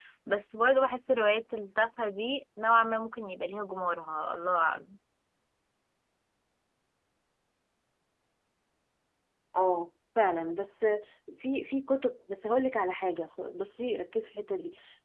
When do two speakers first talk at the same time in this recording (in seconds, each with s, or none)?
none